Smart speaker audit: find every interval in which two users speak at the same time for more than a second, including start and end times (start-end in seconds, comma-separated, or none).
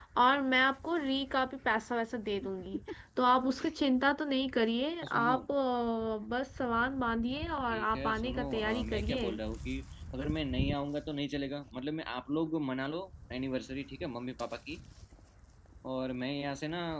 7.7-9.3